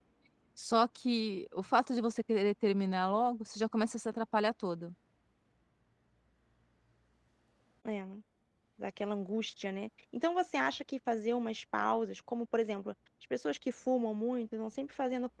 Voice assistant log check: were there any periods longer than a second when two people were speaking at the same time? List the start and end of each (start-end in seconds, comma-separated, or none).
none